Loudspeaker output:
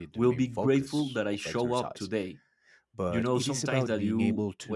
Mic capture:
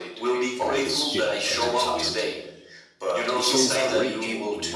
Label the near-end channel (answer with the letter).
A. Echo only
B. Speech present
B